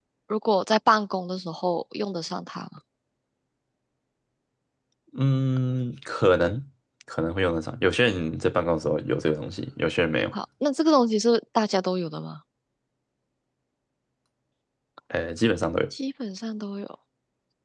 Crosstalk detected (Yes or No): No